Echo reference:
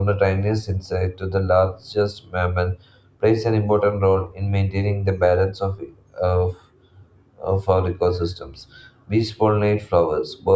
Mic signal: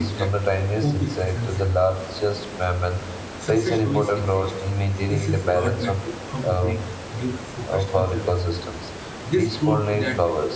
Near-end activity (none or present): present